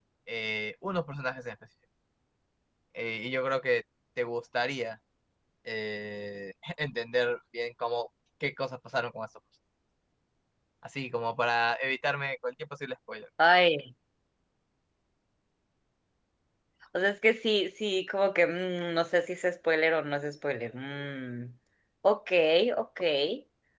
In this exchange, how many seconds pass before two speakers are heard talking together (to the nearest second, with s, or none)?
none